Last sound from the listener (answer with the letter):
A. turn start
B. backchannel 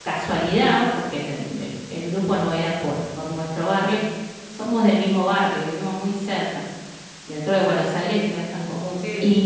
B